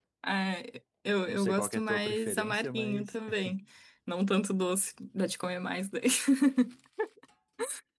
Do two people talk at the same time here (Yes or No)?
Yes